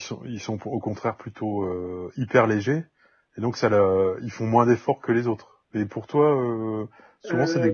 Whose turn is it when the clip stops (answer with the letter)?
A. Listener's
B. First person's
B